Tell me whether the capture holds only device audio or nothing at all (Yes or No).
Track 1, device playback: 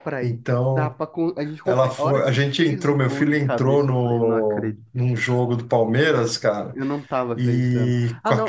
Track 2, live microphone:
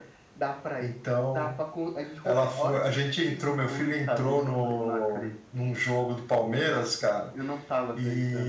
Yes